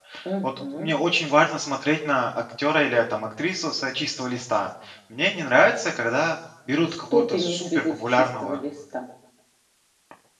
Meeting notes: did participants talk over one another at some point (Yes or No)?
Yes